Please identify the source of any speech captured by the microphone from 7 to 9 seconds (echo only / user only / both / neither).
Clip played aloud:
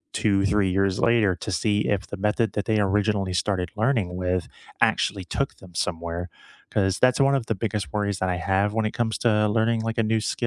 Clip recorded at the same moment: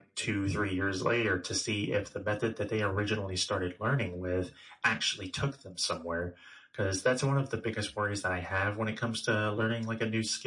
echo only